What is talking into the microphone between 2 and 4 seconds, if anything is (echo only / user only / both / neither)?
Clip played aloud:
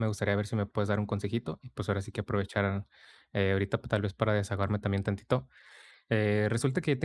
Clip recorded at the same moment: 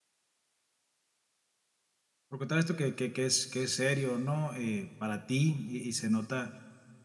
user only